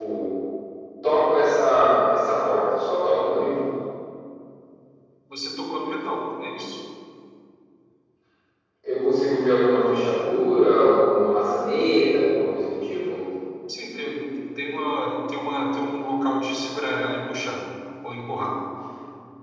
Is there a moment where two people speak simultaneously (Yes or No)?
No